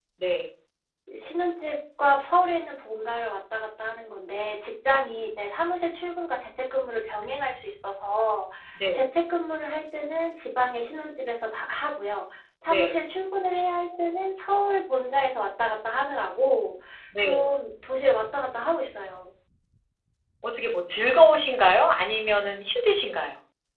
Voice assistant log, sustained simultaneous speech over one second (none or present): none